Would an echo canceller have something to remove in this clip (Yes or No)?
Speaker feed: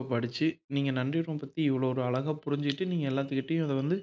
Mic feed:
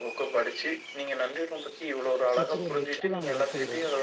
Yes